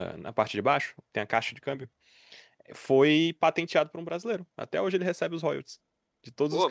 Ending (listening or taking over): listening